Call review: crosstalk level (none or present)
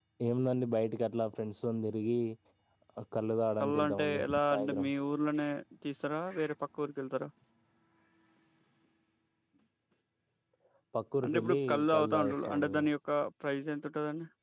present